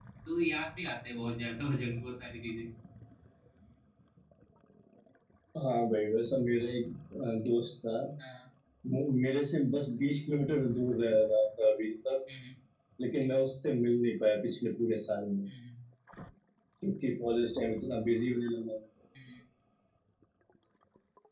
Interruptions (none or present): none